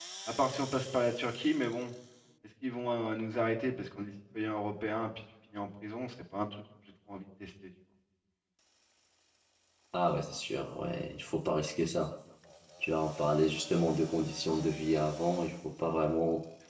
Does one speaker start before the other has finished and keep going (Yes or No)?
No